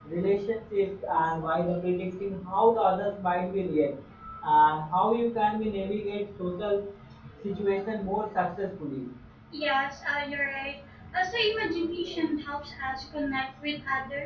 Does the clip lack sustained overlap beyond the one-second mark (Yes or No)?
Yes